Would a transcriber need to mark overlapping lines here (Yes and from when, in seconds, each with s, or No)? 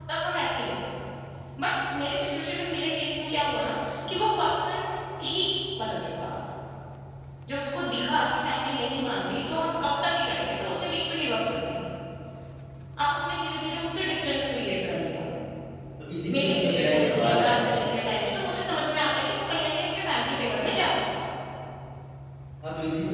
Yes, from 16.3 s